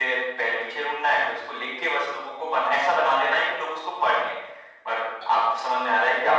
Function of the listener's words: listening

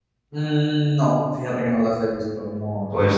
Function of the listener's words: taking over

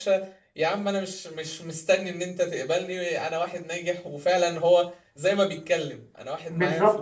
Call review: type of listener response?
listening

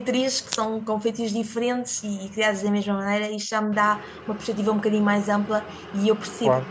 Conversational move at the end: listening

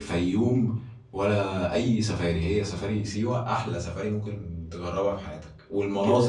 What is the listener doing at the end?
listening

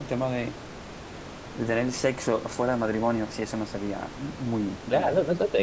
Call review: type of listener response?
taking over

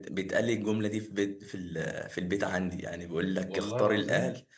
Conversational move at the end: listening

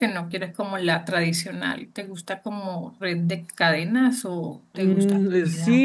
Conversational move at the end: taking over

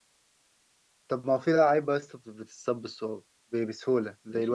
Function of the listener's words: taking over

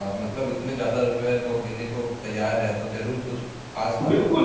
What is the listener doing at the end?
taking over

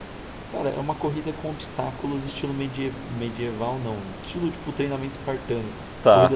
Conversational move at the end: listening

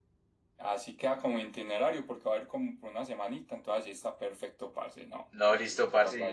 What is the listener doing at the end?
taking over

